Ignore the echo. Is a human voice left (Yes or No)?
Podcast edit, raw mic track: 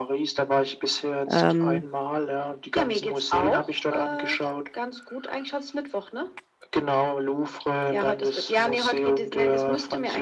Yes